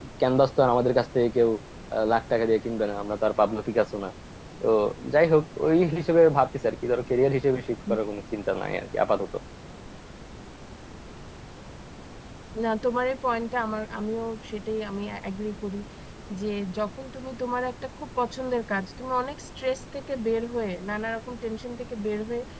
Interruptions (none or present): none